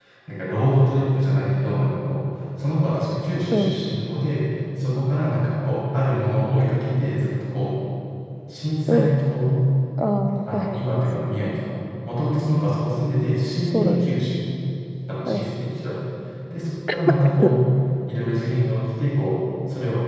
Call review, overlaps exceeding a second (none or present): none